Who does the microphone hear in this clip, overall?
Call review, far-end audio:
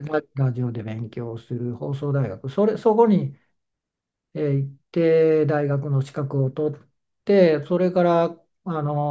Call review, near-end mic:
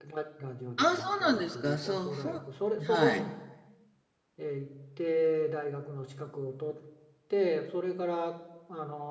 both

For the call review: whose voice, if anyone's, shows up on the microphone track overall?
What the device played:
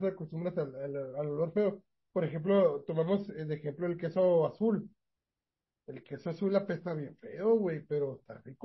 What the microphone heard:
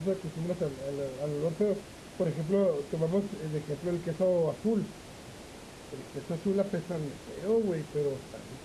echo only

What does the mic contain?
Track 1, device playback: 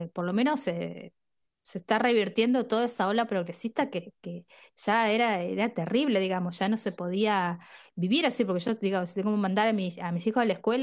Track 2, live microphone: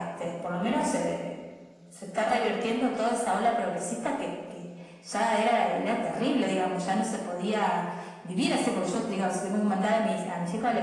echo only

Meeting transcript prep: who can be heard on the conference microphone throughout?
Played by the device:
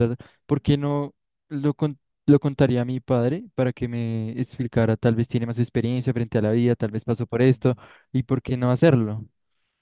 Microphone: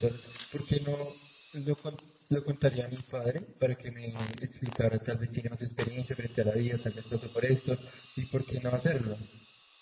echo only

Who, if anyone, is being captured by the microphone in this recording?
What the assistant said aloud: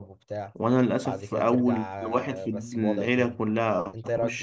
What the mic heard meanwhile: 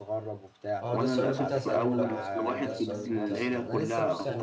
both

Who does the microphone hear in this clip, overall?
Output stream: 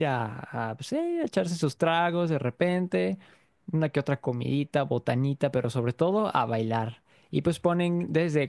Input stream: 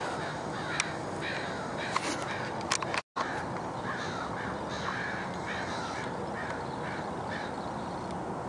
neither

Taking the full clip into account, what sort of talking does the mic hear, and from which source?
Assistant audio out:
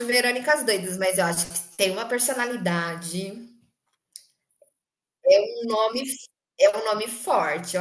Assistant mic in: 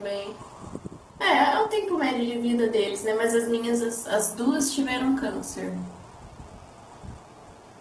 user only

